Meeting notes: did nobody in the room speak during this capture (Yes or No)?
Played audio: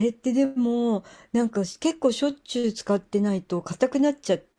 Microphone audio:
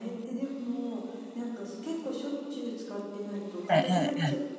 No